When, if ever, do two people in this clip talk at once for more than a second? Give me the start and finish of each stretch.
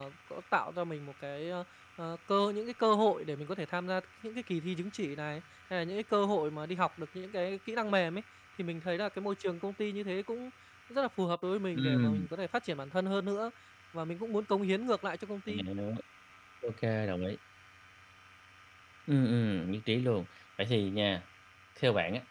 none

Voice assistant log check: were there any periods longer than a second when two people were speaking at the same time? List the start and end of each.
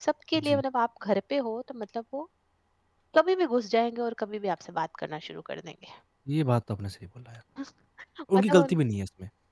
none

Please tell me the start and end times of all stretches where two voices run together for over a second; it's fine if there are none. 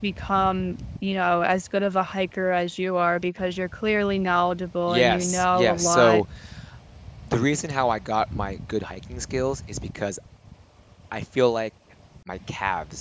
4.9-6.2

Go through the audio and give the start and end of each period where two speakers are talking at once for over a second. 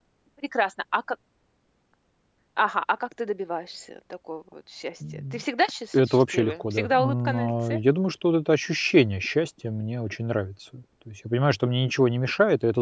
5.9-7.8

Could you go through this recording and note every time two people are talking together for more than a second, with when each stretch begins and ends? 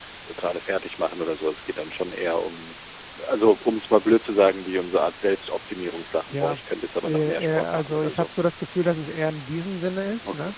7.0-8.2

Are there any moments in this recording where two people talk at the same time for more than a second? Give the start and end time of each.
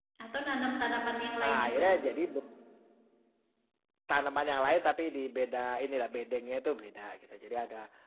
none

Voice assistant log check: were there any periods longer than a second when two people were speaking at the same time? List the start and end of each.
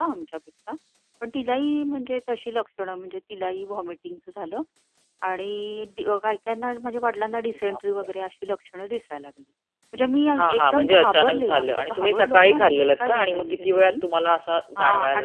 10.4-13.9

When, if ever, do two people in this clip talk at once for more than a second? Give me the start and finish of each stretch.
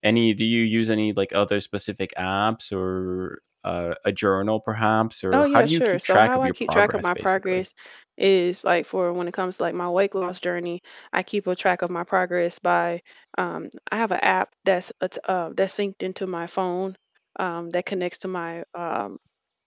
5.3-7.6

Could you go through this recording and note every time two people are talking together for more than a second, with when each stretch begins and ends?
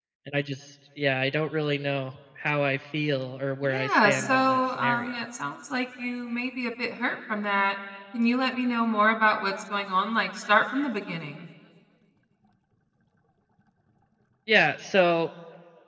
3.6-5.2

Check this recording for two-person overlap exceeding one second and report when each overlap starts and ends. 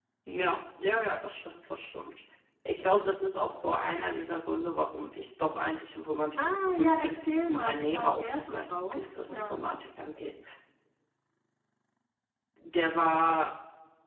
6.4-9.6

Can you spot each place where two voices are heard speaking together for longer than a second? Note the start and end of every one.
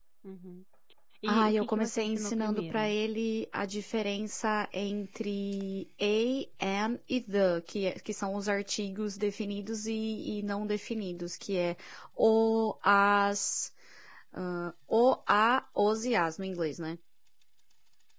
1.3-2.8

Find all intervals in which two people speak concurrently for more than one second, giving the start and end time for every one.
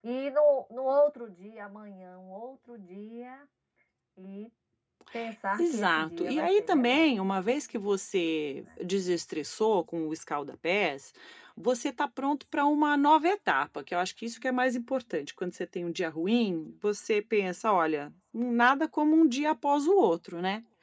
5.6-7.0

